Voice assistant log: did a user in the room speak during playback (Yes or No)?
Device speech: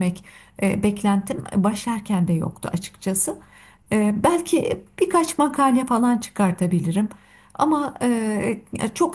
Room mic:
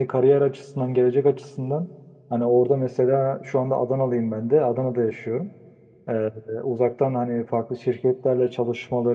Yes